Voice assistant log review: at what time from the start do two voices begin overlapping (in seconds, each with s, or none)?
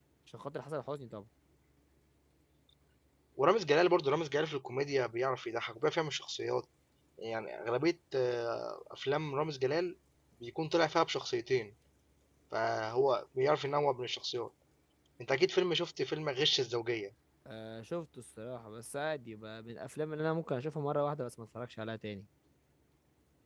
none